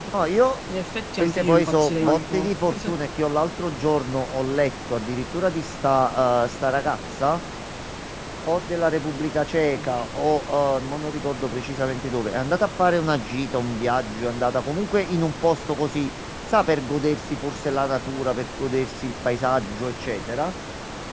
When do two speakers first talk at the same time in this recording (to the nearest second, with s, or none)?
1 s